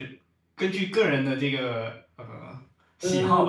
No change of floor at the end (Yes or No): No